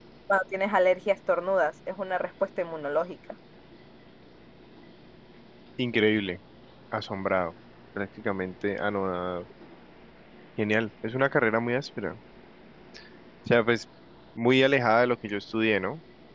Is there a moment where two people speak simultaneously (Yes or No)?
No